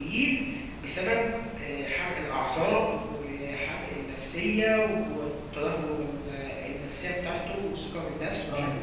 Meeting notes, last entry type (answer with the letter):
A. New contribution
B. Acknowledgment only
B